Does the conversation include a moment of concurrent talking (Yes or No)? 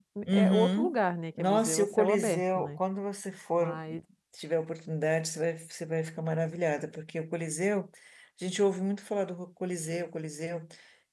Yes